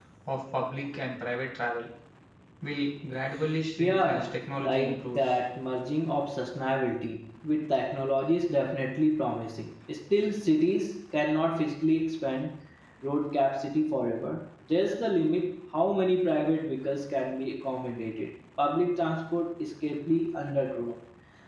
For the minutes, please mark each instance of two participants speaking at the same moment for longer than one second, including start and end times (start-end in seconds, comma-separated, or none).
3.8-5.3